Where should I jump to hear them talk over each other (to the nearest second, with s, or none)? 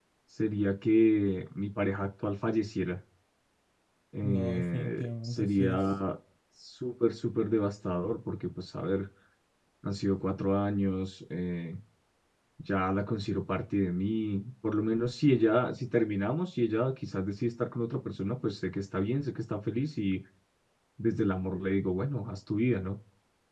4 s